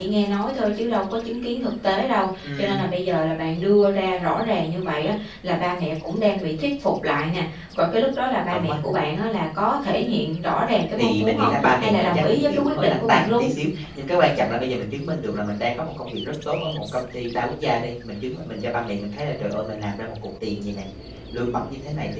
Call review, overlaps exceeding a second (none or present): present